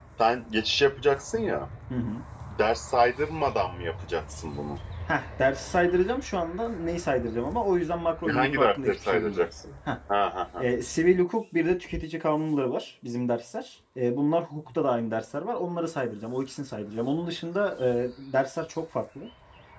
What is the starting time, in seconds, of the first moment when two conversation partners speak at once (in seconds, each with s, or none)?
8.2 s